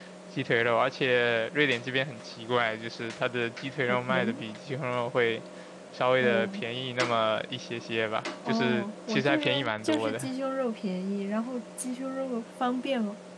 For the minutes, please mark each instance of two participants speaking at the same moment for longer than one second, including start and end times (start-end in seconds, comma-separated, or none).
8.5-10.2